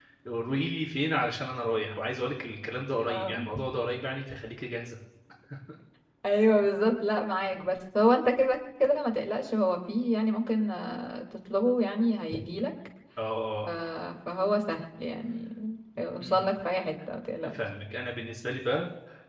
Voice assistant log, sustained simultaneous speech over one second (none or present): none